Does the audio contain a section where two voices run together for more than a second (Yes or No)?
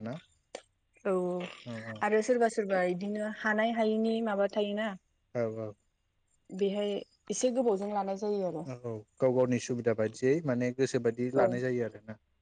No